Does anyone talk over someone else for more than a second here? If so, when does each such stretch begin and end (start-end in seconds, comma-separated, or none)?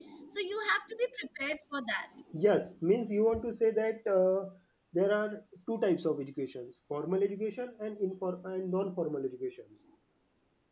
none